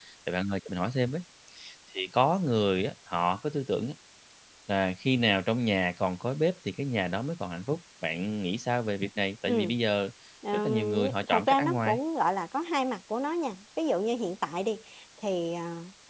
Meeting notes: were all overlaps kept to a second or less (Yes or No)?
No